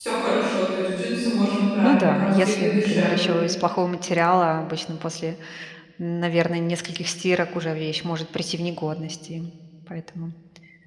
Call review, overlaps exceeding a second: present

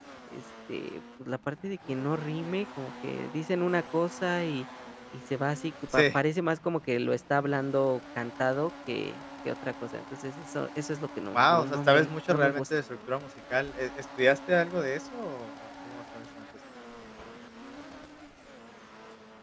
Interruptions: present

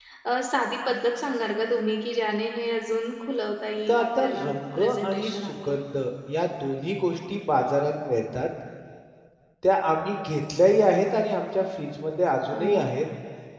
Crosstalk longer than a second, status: present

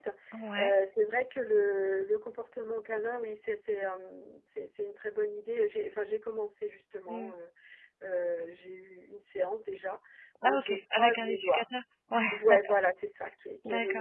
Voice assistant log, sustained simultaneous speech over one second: present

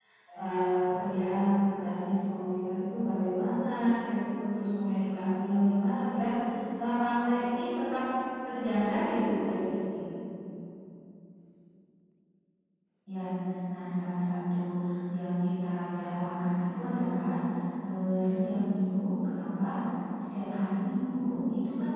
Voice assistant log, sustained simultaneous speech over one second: none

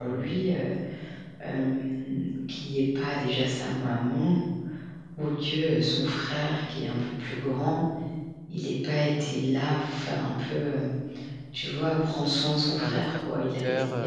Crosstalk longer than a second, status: present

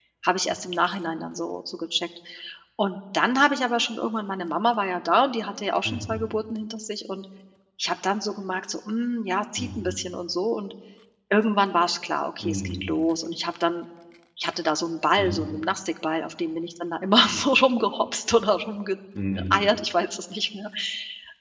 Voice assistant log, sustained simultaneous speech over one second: none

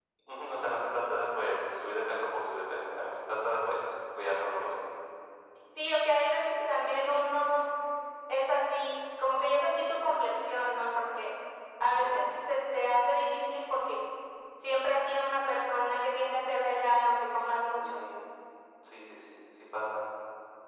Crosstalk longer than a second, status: none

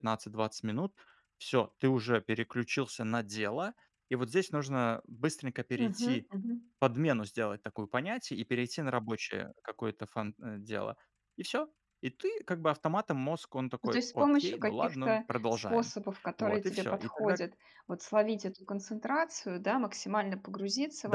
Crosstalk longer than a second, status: present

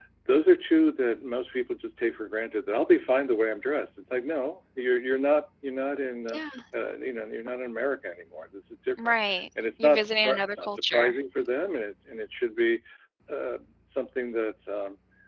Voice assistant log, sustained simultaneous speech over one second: present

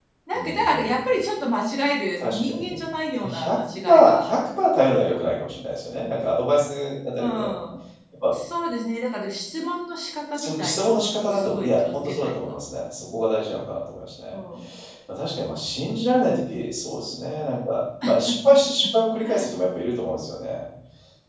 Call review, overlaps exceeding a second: present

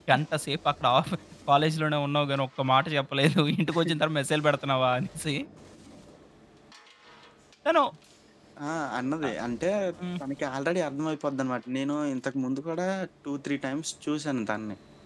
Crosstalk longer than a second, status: none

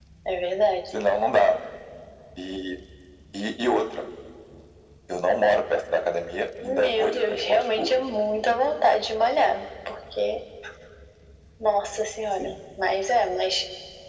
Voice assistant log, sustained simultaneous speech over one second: present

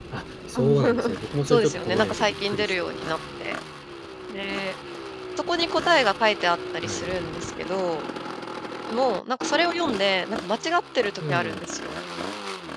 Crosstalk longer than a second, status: present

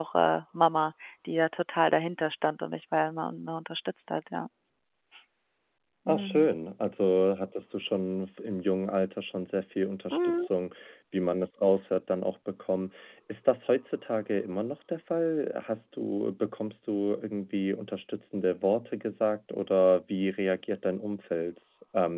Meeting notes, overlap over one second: none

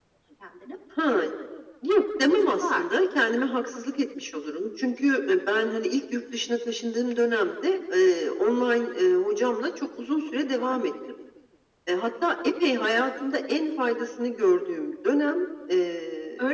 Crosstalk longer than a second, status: none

